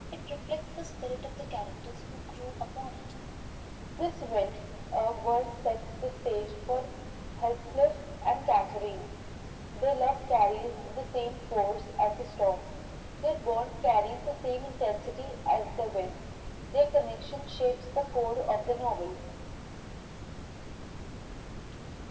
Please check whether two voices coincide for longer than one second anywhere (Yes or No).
No